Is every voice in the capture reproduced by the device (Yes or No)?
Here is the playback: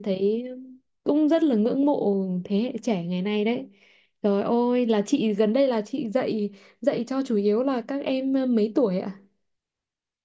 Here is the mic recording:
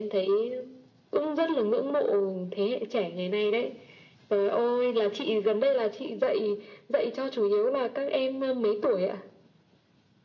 Yes